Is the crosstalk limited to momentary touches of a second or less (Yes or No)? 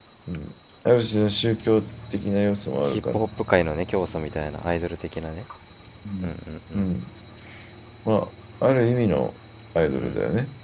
Yes